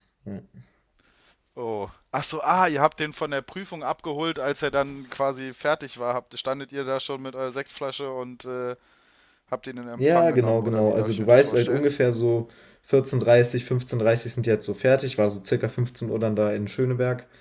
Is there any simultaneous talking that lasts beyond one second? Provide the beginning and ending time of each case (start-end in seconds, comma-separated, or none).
10.0-11.8